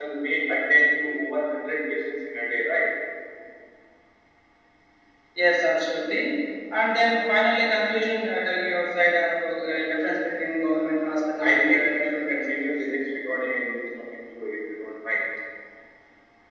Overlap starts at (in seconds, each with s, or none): 11.1 s